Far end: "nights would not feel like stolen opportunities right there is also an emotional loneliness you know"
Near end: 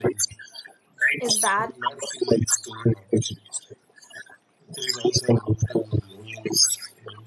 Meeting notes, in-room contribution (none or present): present